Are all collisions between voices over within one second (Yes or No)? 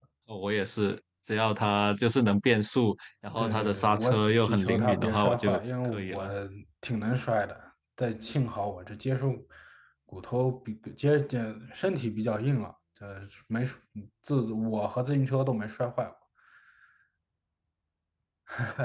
No